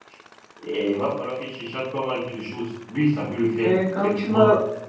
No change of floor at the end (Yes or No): No